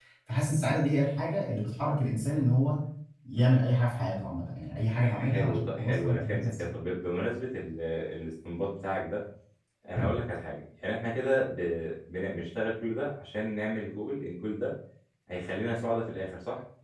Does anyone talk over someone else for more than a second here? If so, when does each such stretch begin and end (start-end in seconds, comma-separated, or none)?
5.0-6.8